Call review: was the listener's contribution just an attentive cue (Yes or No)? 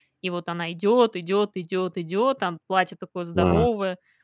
No